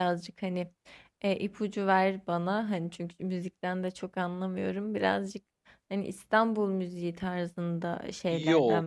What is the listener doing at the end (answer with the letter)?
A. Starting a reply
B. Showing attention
A